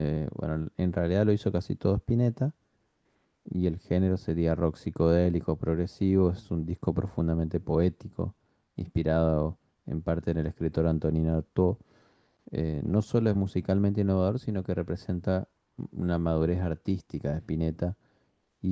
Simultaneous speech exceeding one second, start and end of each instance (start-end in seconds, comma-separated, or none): none